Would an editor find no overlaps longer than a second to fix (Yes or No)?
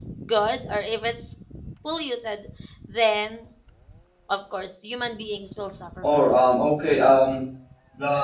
Yes